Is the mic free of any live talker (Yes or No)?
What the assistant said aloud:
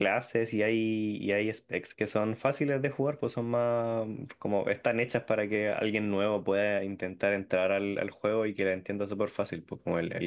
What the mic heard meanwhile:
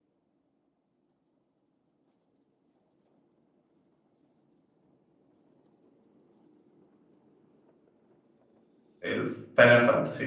No